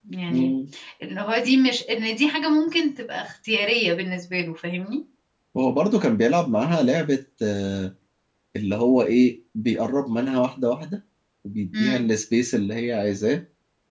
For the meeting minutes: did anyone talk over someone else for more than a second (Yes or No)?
No